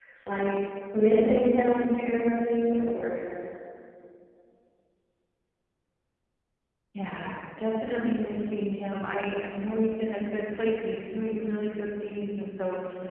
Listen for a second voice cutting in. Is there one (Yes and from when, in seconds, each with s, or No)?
No